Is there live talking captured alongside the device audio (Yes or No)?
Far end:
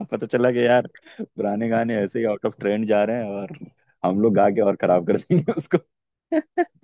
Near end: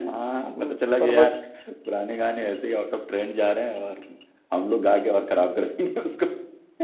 Yes